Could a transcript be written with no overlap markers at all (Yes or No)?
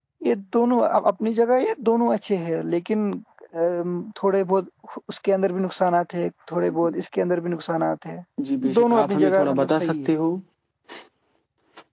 No